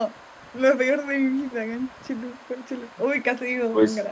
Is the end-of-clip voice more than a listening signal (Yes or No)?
Yes